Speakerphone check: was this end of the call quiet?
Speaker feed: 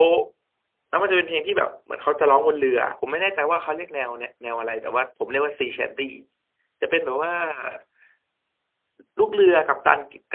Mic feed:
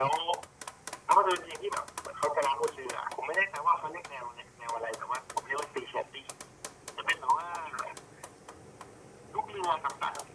Yes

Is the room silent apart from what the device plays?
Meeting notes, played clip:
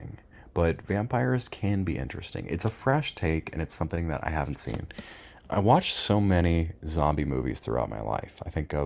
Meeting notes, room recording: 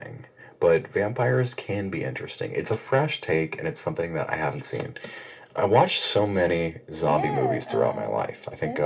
No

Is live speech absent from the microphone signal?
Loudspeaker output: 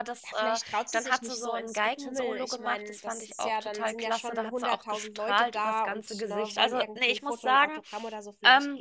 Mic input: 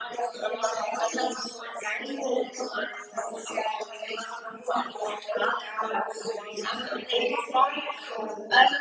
Yes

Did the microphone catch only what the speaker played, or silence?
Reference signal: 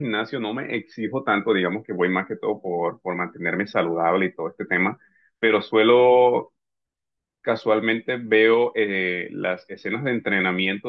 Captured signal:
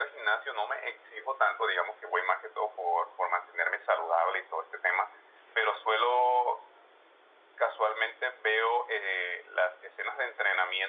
Yes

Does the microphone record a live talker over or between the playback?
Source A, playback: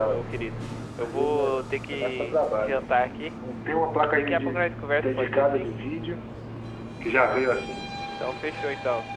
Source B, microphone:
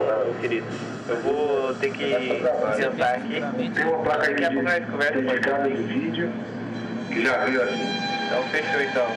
Yes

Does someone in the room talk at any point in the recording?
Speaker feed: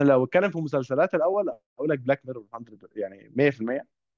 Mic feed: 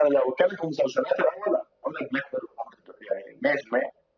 No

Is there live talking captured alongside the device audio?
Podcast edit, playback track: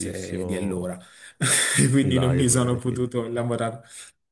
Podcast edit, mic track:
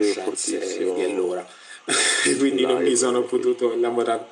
No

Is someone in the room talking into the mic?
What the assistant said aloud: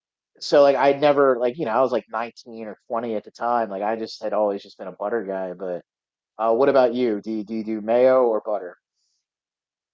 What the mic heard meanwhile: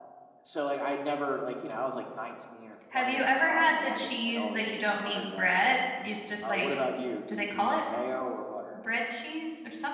Yes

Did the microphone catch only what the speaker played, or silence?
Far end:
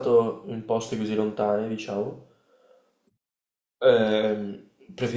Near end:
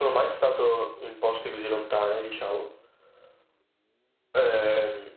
Yes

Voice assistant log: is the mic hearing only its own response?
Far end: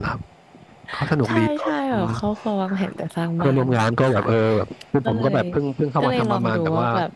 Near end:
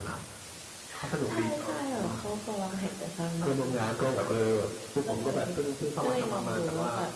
Yes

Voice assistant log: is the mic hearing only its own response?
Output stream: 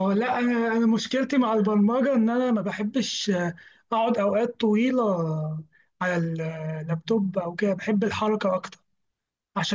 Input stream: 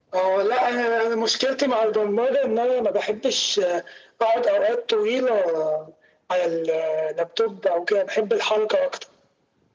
Yes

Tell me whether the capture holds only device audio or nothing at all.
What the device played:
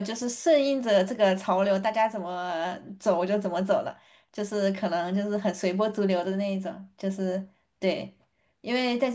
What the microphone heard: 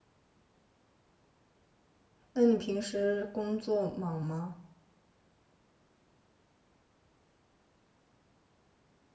No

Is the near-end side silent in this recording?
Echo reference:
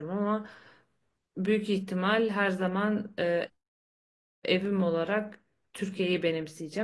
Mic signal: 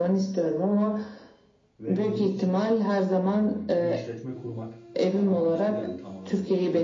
No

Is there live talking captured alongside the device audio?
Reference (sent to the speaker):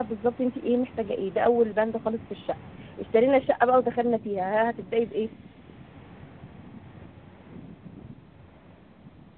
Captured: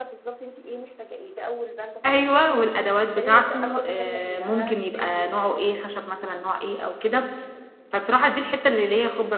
Yes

